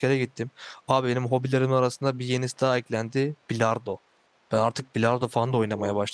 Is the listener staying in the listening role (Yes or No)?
Yes